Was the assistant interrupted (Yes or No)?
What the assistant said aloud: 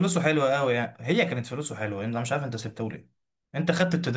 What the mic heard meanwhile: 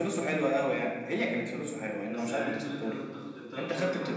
Yes